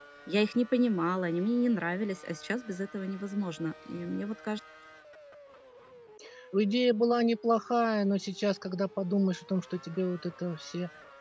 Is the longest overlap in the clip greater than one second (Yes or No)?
No